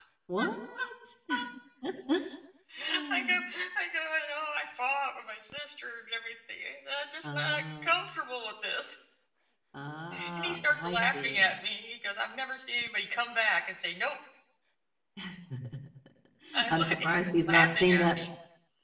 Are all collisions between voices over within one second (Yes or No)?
No